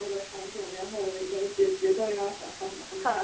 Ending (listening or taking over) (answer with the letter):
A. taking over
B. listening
A